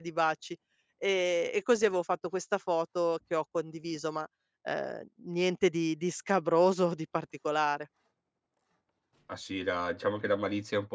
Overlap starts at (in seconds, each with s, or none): none